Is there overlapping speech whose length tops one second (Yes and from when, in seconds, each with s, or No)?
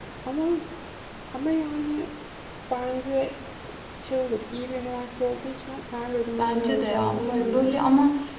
Yes, from 6.4 s